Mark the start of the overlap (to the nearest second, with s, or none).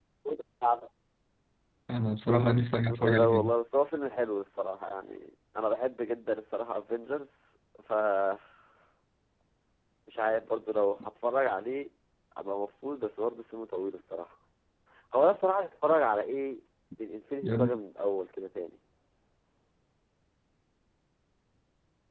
2 s